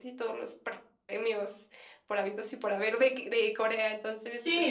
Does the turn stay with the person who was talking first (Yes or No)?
No